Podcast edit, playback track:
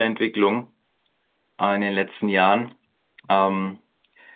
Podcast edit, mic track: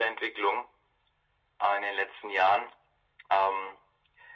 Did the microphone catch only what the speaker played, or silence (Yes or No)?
Yes